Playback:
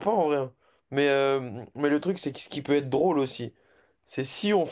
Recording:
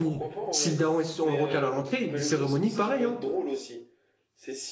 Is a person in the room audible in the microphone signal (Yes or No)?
Yes